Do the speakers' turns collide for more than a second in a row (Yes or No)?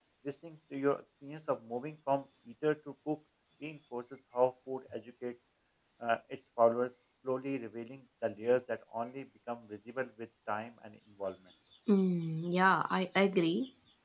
No